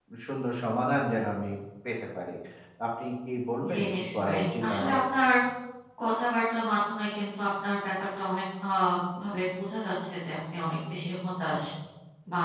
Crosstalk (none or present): present